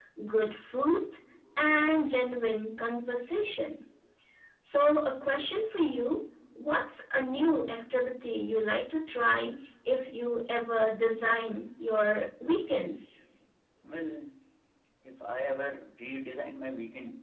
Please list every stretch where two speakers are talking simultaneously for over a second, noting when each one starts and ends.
none

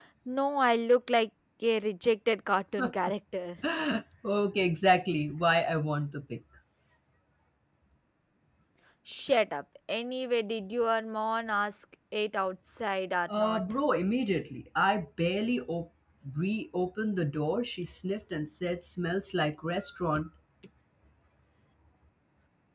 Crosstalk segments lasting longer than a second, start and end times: none

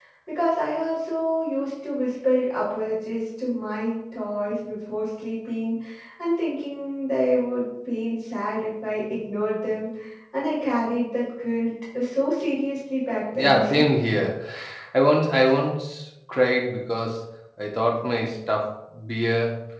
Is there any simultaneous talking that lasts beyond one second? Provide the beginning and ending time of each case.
none

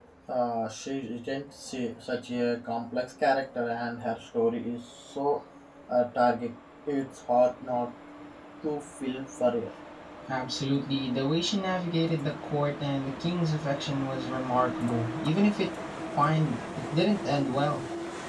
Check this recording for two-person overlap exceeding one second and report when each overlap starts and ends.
none

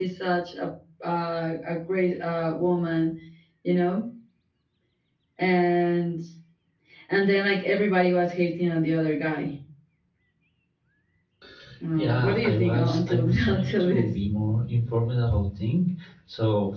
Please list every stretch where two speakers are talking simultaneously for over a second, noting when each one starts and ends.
11.9-14.2

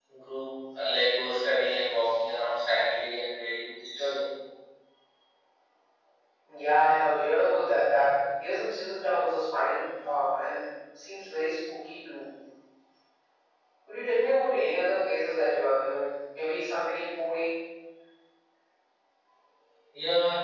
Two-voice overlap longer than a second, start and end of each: none

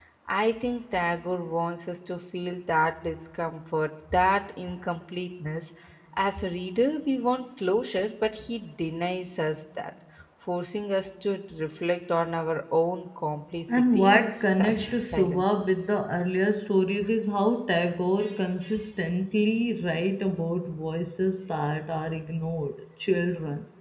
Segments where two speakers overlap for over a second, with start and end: 13.7-16.0

